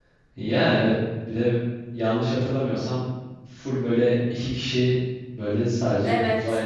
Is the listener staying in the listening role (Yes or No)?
Yes